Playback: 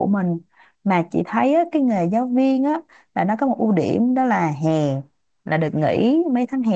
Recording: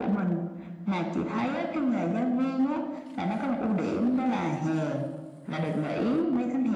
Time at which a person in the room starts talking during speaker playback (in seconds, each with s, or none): none